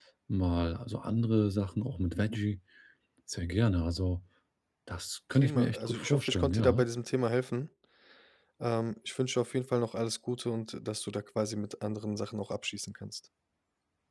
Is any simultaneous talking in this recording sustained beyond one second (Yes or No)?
Yes